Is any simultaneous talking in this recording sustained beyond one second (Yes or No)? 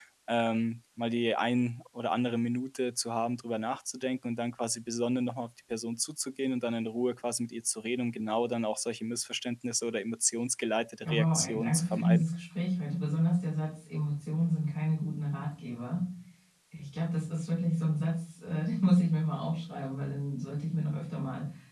Yes